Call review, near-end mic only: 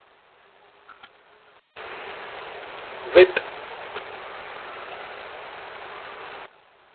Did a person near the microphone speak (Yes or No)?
Yes